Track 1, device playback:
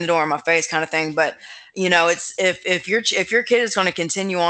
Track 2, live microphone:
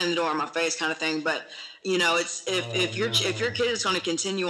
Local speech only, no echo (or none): Oh, no.